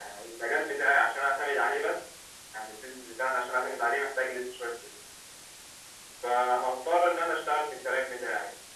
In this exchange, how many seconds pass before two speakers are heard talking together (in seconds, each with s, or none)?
none